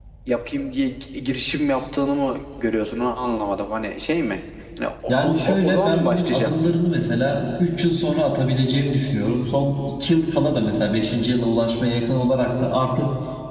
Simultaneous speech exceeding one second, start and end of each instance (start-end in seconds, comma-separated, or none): 5.1-6.8